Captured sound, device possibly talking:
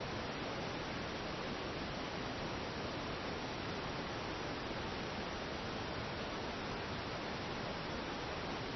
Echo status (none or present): none